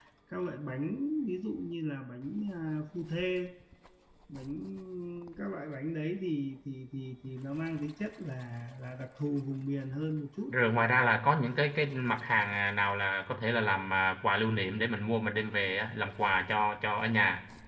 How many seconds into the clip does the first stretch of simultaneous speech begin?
none

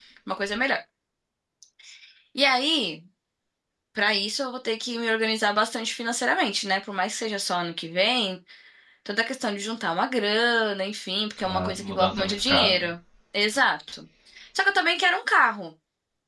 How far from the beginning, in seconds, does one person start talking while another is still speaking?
11.5 s

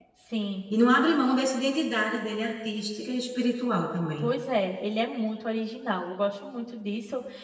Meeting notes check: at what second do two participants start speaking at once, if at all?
none

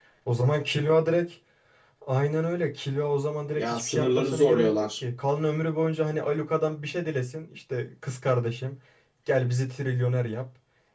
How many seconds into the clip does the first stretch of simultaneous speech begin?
3.5 s

